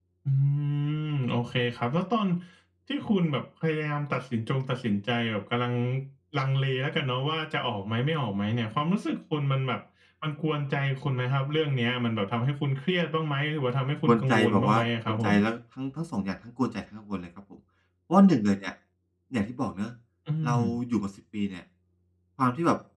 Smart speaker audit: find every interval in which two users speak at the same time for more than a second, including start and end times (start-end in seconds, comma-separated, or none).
14.1-15.3